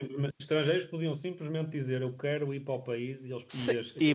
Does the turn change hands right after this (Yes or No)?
Yes